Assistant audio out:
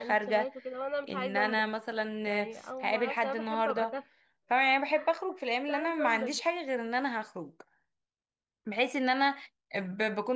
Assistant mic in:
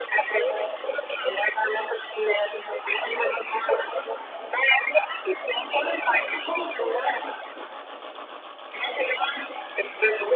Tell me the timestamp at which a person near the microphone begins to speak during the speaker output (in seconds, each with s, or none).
none